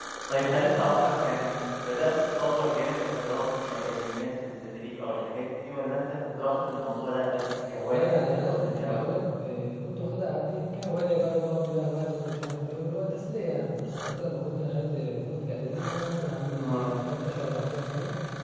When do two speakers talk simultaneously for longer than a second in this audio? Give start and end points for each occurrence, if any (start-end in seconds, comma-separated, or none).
7.8-9.0